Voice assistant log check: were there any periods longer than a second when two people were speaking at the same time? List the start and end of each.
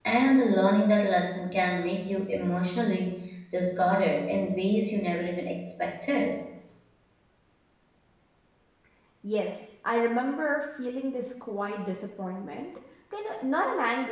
none

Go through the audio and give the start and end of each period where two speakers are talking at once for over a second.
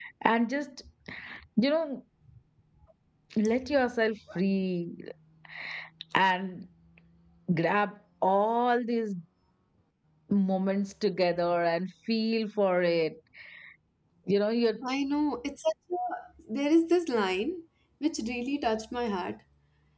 none

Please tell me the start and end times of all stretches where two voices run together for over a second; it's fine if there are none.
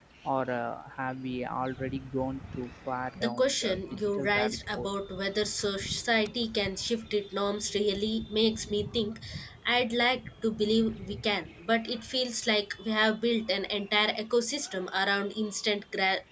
3.2-4.9

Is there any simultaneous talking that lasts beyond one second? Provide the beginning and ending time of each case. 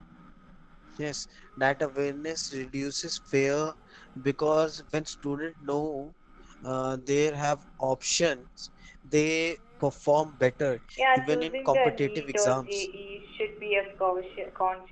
11.2-12.9

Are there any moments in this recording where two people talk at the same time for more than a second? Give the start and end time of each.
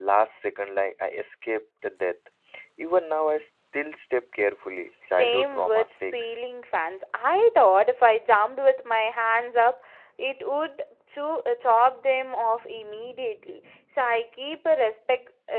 5.1-6.3

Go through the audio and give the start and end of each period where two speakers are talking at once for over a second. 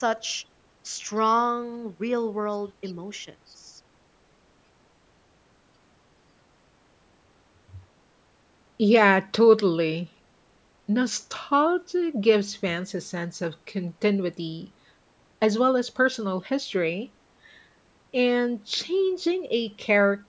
none

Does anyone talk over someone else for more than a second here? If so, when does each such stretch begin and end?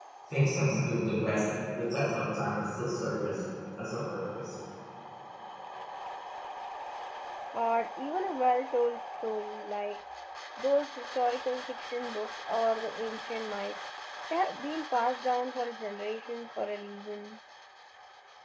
none

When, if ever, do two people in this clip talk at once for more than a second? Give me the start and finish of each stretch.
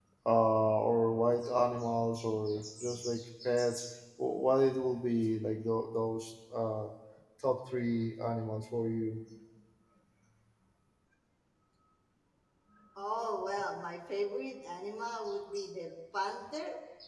none

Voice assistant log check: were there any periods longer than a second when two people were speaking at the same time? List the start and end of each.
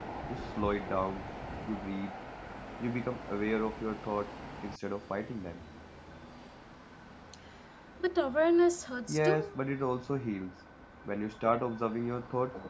none

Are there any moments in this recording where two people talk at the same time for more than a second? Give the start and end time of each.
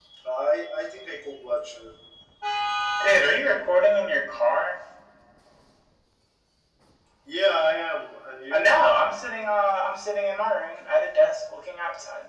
none

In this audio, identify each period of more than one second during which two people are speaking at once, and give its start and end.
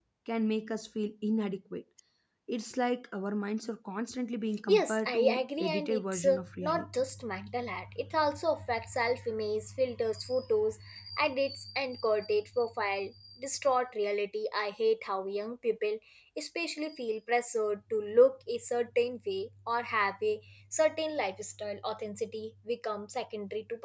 4.7-6.8

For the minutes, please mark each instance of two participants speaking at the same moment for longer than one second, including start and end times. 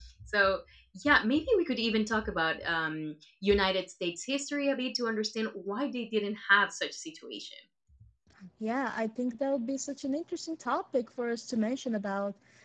none

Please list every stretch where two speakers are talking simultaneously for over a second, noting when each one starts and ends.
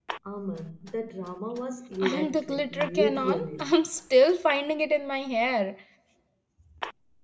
2.0-3.7

